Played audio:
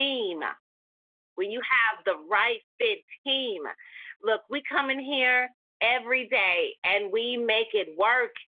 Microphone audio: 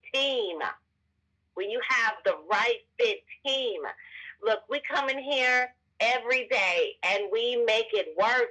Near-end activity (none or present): none